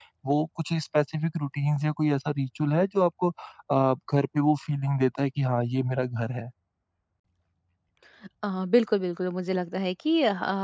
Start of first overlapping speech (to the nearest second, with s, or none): none